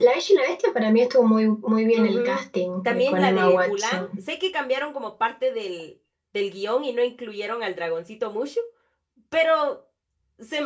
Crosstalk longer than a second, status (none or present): present